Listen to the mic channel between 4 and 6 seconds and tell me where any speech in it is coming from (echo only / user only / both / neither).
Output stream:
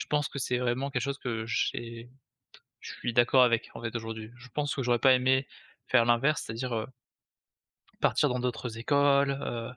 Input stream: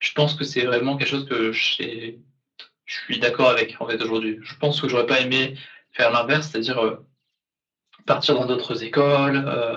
echo only